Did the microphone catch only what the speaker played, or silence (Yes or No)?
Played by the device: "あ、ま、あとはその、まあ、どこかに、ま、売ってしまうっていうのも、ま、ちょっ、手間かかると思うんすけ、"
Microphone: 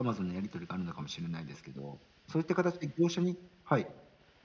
No